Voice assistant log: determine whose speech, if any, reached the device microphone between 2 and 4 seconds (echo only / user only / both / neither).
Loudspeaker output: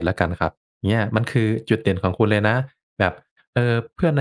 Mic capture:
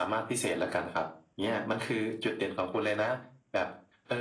echo only